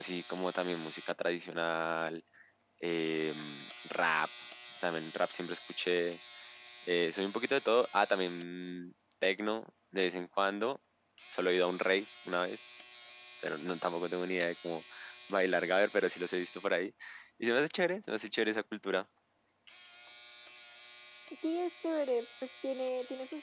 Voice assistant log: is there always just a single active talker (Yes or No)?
Yes